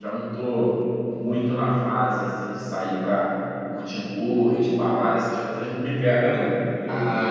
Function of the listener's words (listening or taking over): taking over